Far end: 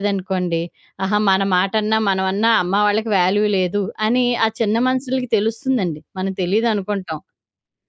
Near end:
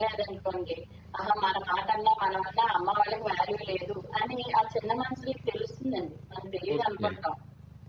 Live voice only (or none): ఓకే.